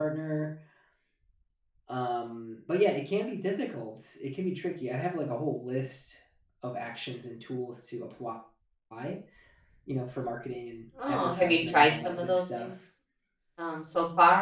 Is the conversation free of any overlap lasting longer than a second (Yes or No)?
No